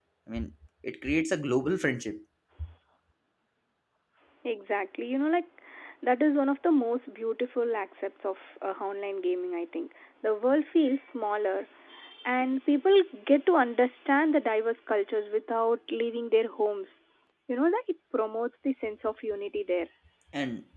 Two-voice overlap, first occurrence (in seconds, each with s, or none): none